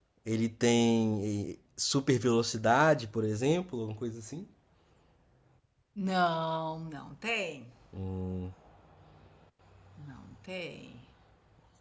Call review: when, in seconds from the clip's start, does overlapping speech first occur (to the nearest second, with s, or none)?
none